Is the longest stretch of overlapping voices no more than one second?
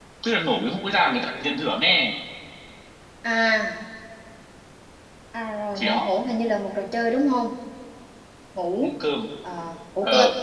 Yes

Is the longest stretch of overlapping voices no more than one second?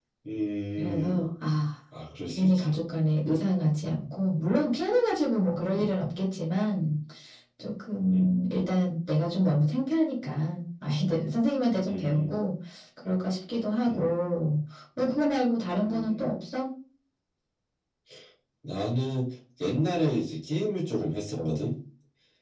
Yes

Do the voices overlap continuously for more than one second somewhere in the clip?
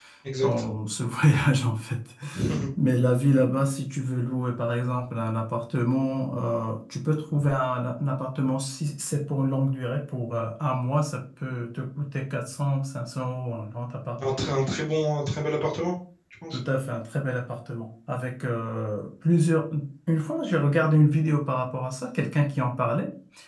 No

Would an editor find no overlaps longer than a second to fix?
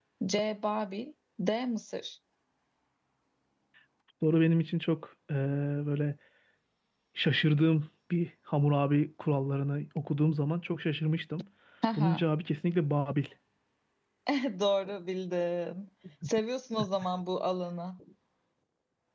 Yes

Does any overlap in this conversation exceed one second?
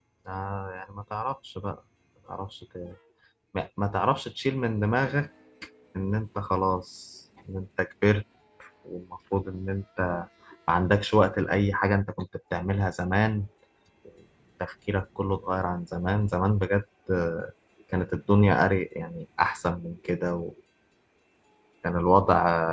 No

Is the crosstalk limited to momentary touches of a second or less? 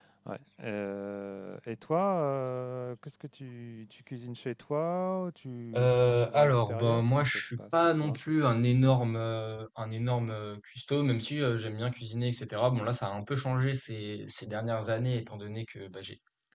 No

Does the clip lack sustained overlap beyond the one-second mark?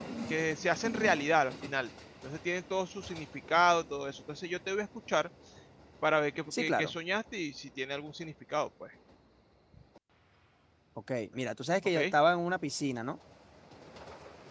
Yes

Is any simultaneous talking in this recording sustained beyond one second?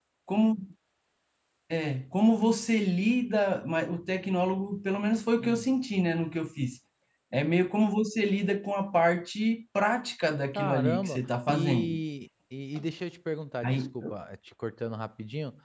Yes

